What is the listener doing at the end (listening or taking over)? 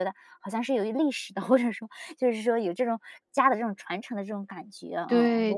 taking over